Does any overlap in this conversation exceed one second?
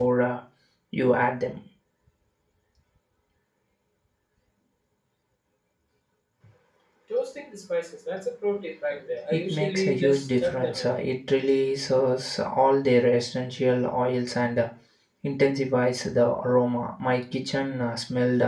Yes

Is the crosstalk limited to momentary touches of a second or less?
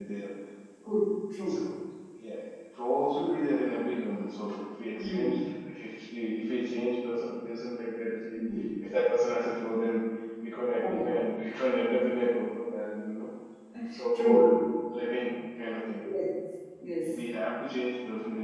Yes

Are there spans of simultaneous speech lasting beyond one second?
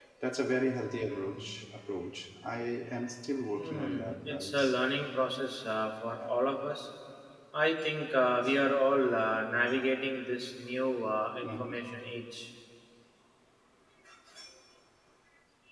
Yes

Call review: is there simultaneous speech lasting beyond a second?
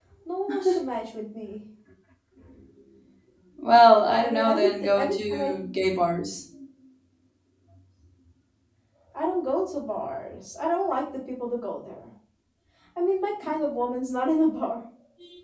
Yes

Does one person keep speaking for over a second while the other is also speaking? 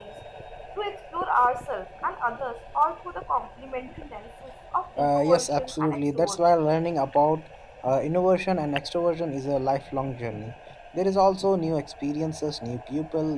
Yes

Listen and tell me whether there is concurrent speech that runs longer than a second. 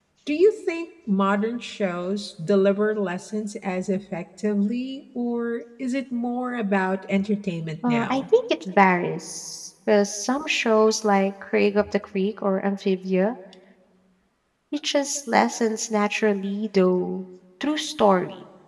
No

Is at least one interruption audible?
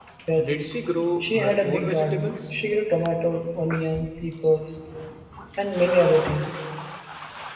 Yes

